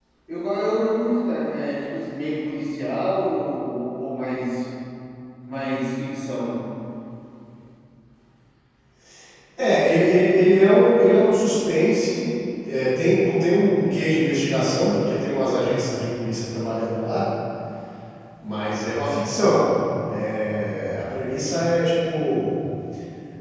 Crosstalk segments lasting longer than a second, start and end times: none

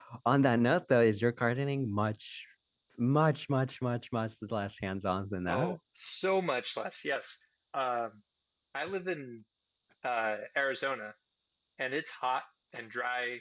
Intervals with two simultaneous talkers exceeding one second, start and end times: none

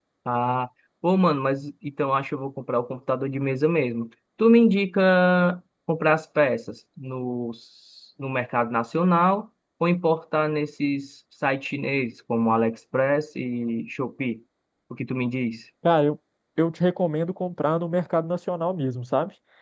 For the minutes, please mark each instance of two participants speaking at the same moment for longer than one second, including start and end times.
none

